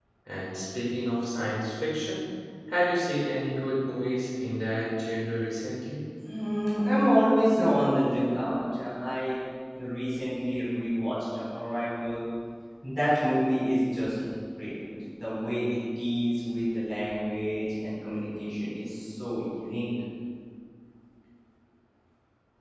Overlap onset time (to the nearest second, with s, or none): none